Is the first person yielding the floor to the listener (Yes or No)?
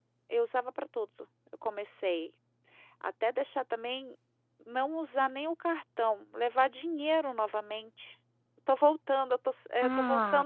Yes